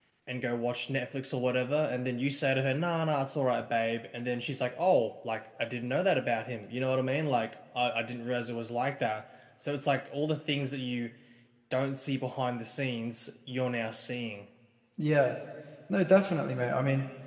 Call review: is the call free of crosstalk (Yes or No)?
Yes